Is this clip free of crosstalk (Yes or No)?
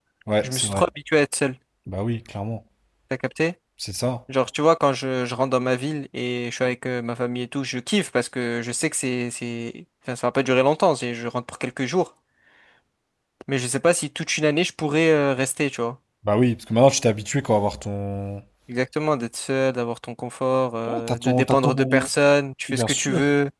No